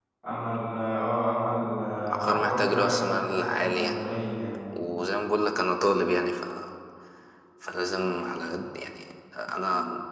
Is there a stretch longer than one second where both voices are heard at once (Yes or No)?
Yes